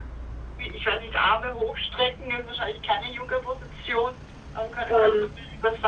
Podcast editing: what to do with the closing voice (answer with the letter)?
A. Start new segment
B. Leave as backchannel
B